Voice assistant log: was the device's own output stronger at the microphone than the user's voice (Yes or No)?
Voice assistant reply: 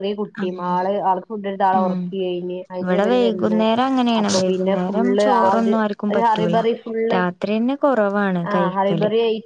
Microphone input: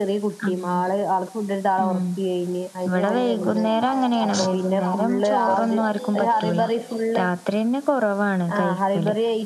Yes